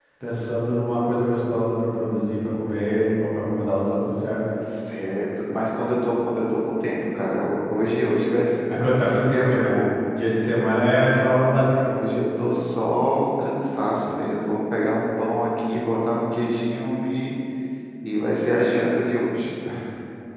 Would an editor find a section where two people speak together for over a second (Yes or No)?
No